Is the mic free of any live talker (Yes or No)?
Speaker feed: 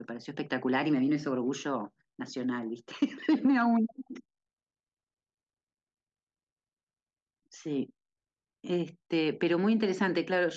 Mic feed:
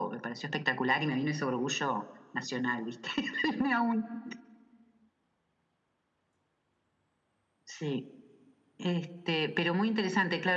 Yes